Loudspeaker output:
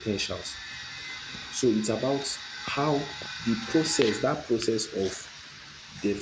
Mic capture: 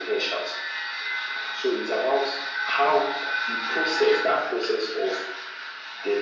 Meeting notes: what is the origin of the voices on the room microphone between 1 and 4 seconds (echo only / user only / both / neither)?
echo only